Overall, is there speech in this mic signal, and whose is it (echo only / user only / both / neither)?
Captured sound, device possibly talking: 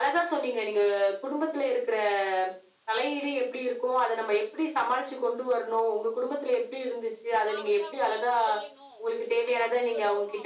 both